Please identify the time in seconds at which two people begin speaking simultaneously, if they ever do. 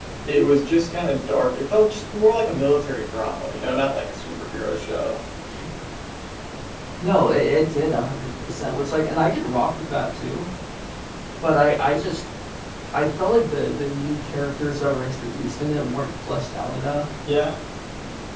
none

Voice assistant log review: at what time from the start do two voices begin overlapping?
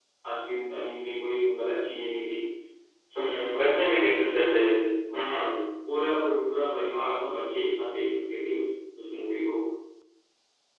3.1 s

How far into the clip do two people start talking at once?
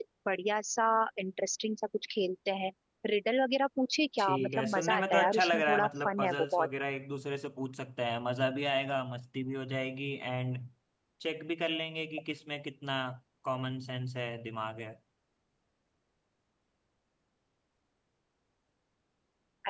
4.2 s

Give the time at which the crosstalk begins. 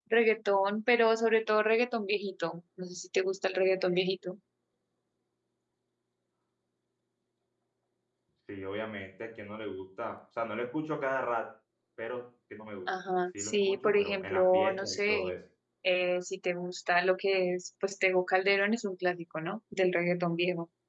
13.4 s

